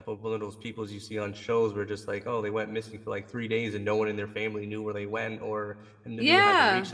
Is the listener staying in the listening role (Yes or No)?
Yes